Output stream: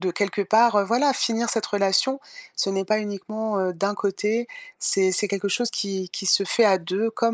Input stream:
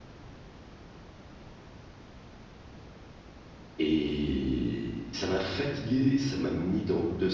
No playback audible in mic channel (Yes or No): Yes